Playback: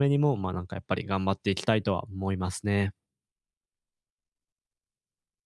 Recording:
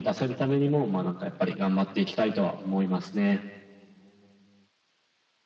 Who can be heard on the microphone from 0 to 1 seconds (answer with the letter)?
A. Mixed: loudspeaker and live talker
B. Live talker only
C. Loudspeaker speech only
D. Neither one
C